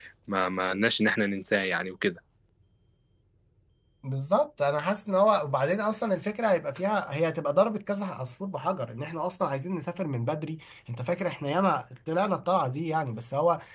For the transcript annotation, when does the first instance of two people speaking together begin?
none

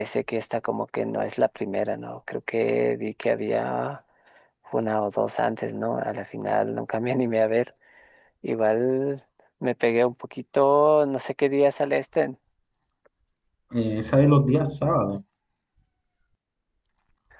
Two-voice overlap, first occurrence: none

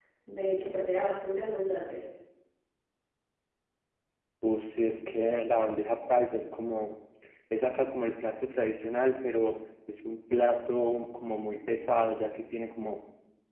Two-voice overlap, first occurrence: none

